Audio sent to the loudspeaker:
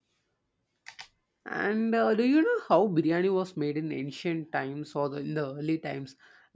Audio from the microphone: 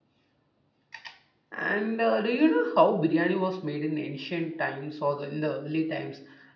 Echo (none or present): present